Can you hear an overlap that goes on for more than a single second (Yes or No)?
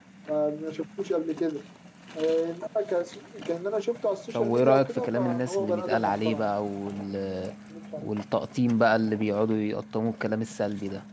Yes